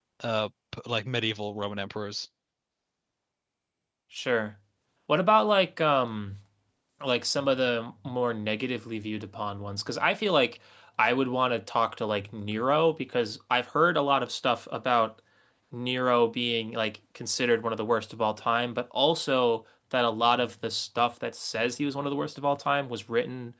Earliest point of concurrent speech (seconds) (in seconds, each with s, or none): none